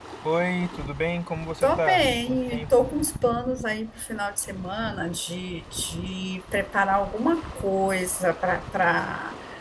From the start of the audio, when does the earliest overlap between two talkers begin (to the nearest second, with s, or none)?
2 s